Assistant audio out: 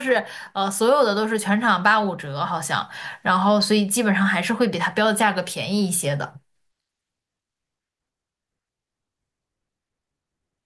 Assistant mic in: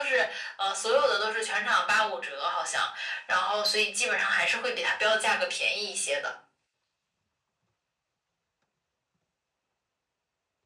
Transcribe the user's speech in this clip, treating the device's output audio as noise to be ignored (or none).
none